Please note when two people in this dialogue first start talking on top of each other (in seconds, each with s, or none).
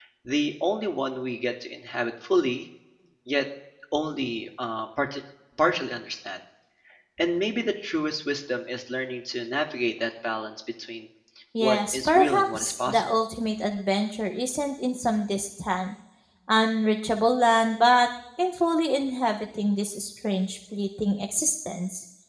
11.6 s